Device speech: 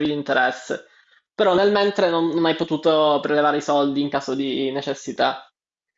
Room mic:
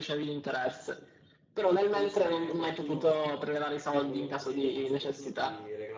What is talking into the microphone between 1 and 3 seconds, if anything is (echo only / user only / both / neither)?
both